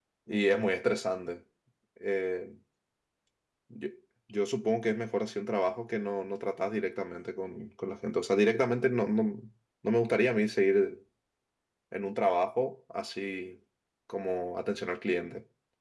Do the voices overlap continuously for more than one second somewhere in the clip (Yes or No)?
No